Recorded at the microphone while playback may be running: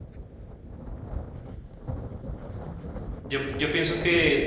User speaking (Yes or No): Yes